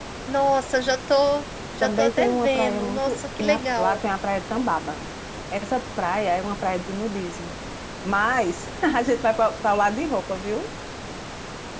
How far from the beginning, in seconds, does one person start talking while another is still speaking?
1.8 s

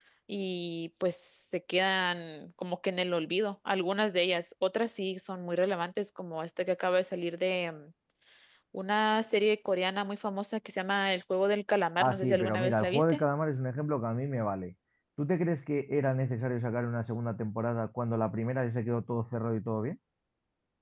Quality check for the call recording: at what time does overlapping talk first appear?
12.0 s

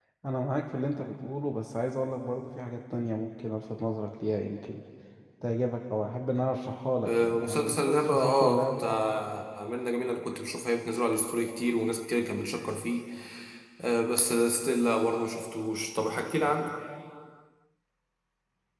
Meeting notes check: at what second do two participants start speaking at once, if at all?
7.0 s

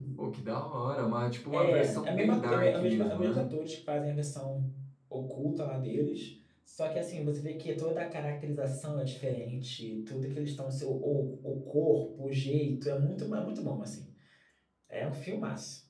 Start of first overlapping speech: 1.5 s

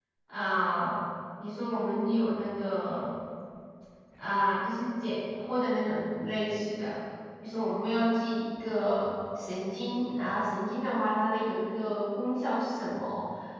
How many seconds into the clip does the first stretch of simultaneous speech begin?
none

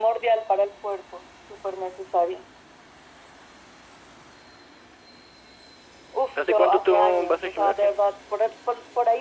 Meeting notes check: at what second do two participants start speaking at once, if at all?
6.4 s

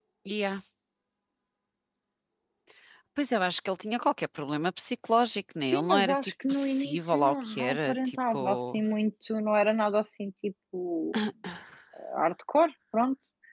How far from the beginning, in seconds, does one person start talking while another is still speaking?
5.7 s

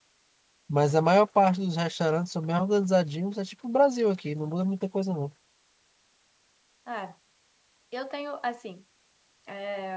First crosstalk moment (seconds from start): none

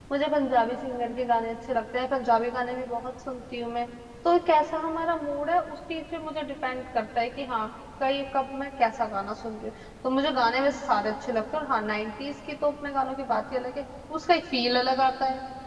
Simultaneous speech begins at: none

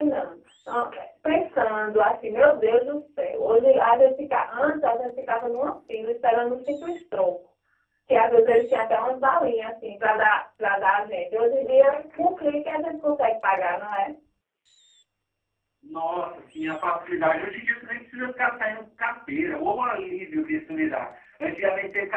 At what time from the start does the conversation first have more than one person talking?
none

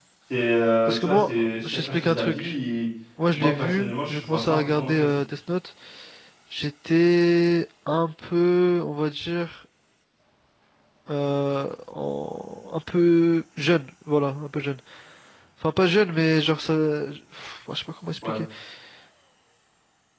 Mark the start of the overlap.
0.9 s

